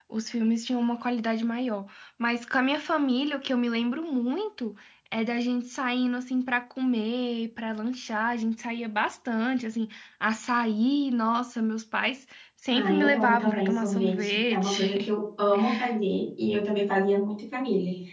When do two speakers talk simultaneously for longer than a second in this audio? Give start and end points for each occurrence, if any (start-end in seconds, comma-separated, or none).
12.7-15.1